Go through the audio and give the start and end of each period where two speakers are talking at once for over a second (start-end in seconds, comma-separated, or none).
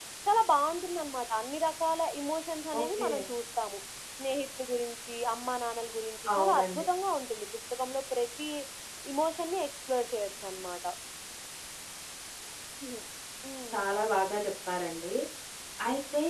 none